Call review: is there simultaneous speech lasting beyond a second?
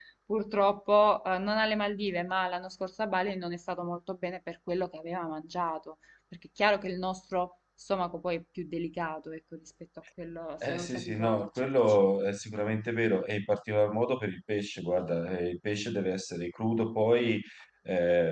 Yes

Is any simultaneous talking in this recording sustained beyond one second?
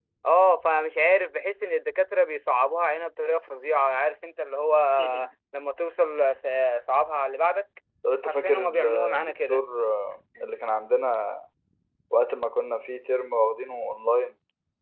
Yes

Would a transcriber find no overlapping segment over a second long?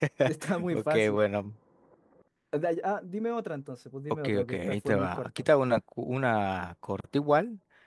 No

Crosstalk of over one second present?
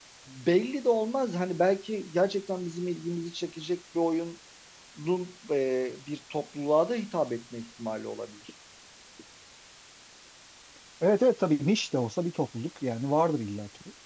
No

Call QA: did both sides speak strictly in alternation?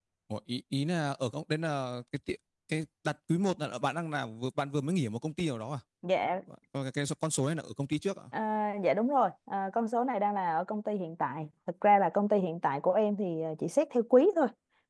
Yes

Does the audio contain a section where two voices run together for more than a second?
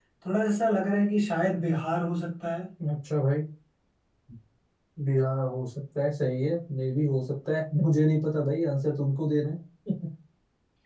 No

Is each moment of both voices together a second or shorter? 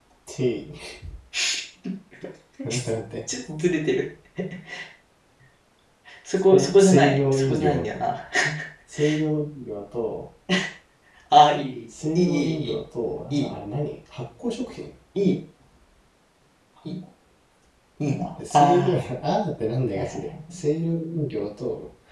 No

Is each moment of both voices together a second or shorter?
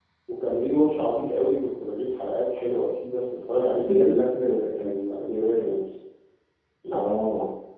Yes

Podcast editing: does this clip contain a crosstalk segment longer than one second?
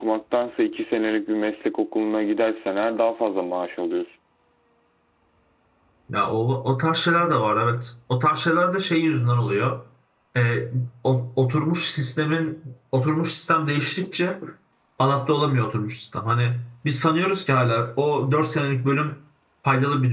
No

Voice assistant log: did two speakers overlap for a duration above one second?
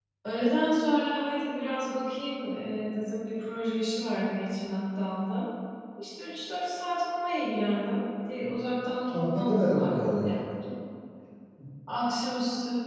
Yes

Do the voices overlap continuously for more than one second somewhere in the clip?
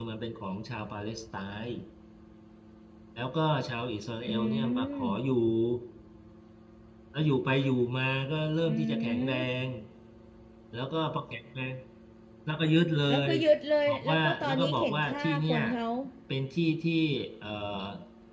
Yes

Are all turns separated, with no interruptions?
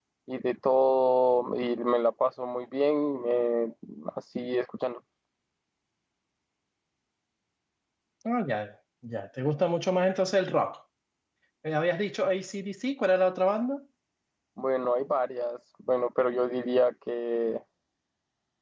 Yes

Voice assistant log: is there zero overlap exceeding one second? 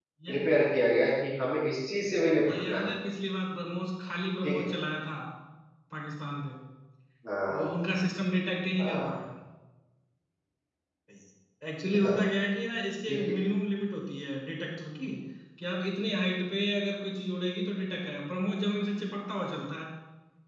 Yes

